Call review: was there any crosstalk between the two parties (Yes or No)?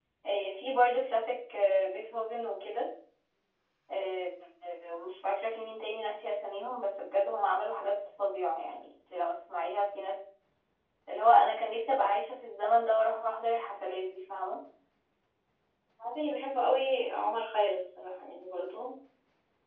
No